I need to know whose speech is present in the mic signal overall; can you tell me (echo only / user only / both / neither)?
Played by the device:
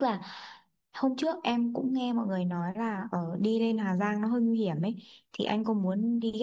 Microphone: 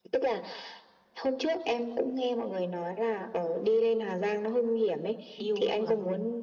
both